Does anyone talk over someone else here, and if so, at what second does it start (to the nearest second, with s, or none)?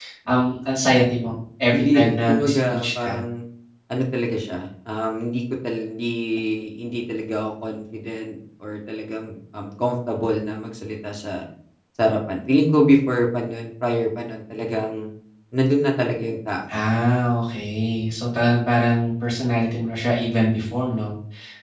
2 s